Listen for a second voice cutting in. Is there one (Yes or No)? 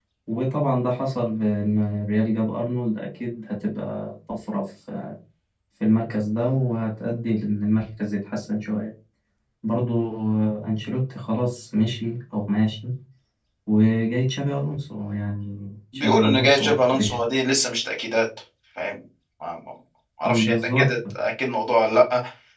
Yes